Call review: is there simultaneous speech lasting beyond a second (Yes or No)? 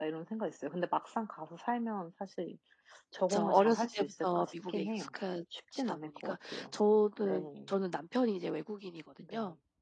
Yes